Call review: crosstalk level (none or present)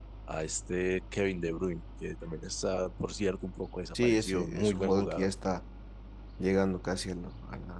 present